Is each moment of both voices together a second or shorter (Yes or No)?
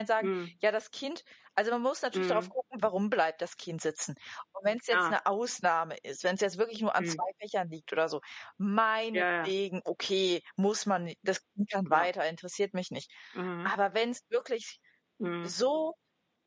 Yes